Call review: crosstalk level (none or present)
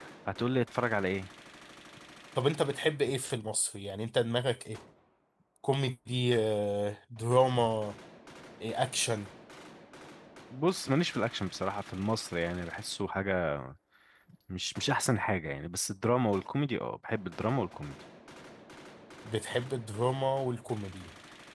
none